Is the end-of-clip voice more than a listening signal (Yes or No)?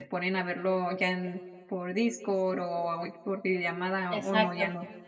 Yes